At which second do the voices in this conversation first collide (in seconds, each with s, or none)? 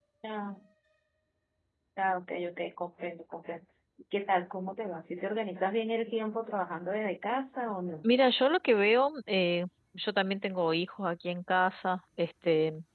none